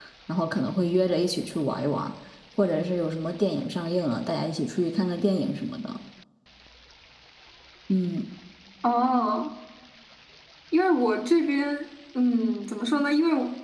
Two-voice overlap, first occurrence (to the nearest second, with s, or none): none